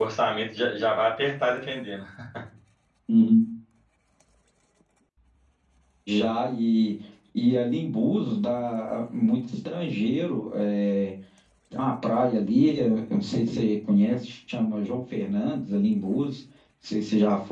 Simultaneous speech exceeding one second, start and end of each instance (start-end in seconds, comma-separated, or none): none